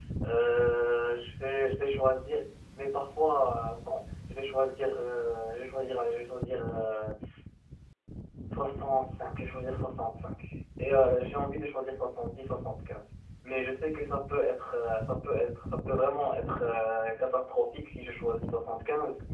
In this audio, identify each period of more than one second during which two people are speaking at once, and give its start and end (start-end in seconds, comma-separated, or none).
none